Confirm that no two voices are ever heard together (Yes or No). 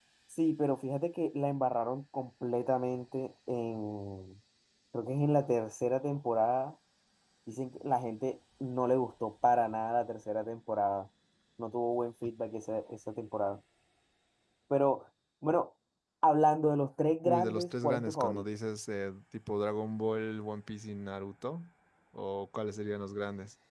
No